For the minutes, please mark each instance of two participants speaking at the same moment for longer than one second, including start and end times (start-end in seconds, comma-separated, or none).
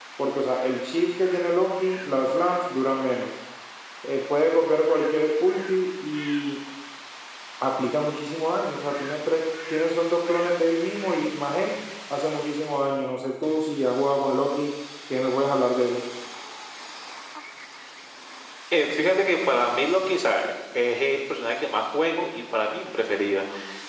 none